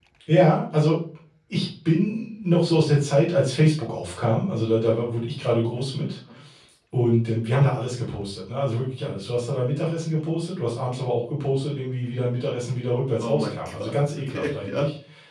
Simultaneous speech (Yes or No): Yes